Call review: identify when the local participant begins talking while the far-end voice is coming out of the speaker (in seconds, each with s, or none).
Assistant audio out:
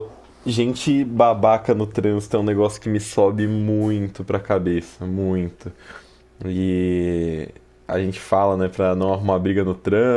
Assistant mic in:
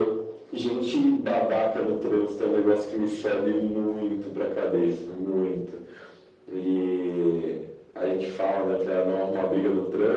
none